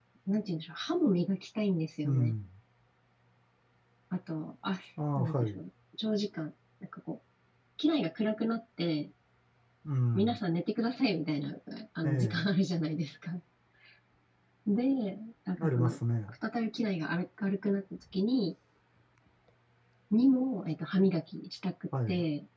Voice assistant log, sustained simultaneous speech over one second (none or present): none